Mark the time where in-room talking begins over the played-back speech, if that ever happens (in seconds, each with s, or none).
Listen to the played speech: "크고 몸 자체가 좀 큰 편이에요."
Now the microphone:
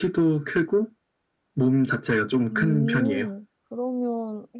2.5 s